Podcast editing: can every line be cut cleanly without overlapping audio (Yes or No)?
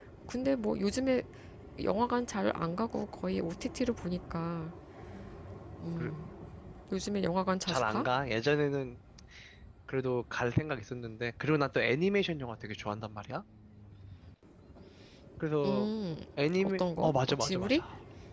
No